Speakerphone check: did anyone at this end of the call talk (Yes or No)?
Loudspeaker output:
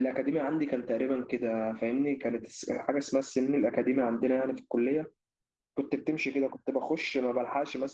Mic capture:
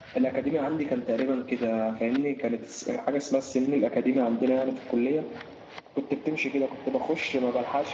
No